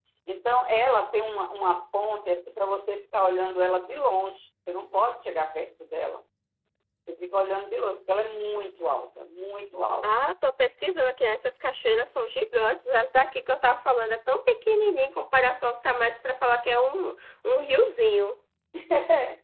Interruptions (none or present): none